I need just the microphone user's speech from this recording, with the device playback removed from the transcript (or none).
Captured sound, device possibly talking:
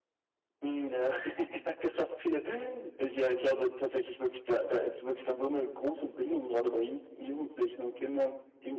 none